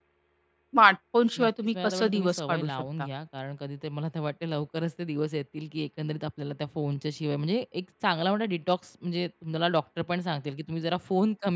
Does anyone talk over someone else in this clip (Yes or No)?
Yes